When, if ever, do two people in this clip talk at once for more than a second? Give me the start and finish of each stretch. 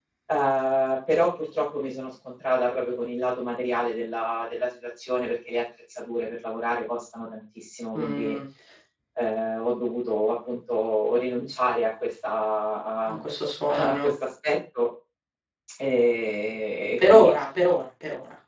none

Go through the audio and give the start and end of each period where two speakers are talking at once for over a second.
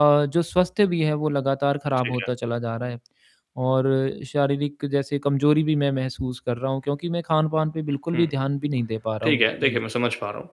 none

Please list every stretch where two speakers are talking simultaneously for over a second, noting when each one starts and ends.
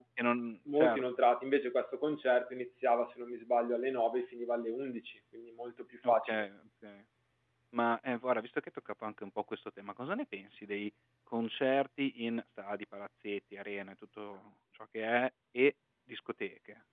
none

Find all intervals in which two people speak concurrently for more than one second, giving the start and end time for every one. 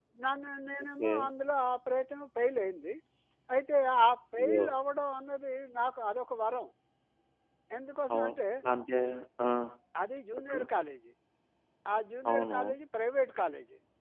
none

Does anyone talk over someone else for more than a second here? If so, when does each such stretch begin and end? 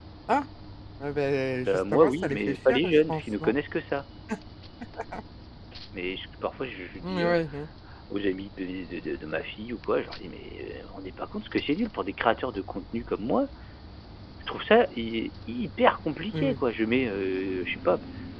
1.6-3.5

